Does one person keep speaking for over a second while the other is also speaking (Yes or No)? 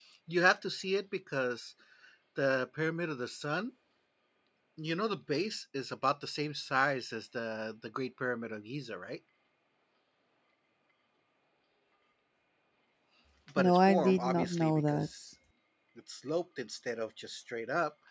Yes